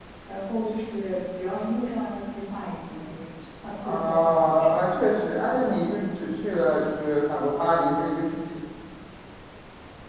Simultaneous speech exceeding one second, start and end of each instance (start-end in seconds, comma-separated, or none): 3.8-5.8